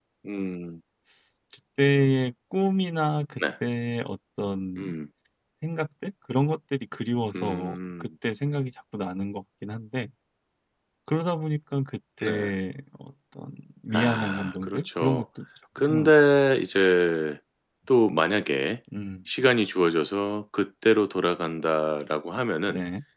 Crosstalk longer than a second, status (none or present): present